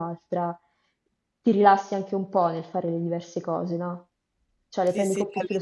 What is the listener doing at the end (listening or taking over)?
taking over